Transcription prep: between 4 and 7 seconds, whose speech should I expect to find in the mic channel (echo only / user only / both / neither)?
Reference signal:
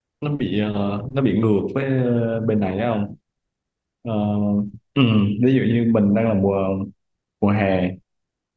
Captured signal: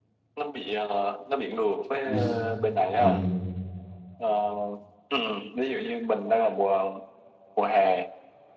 echo only